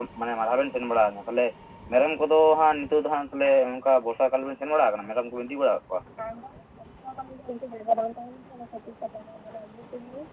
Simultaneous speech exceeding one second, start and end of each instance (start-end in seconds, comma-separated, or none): none